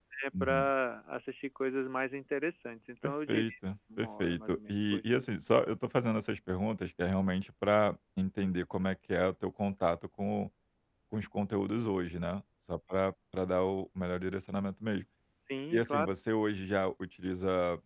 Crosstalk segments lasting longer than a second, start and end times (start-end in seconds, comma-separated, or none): 4.0-5.2